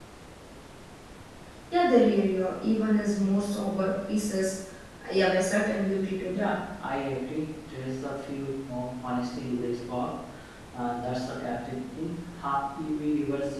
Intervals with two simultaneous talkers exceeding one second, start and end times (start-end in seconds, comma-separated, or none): none